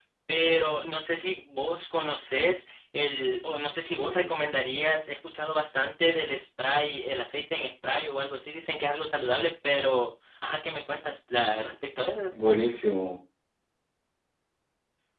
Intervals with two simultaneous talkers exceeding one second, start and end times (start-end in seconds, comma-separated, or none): none